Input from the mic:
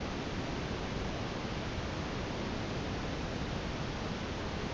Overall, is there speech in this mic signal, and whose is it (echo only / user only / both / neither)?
neither